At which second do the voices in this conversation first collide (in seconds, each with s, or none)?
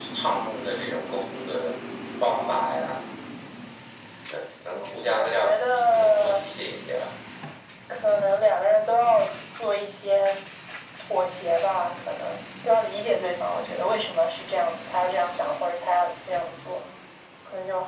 4.7 s